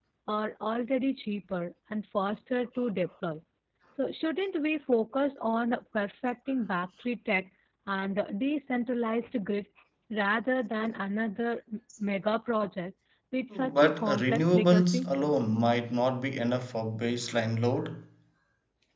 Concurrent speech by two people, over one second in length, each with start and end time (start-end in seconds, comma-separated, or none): 13.5-15.1